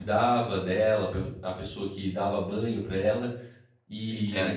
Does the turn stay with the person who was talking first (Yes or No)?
Yes